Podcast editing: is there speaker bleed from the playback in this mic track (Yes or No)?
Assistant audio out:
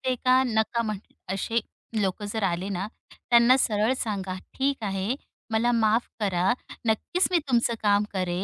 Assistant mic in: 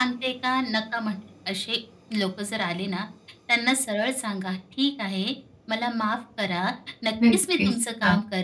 Yes